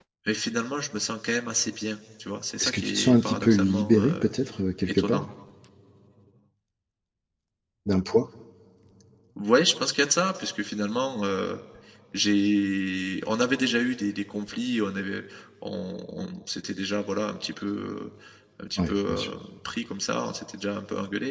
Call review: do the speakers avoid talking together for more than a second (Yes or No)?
No